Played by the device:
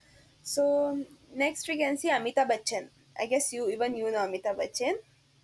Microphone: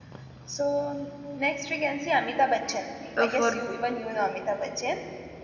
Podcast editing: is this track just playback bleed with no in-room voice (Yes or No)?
No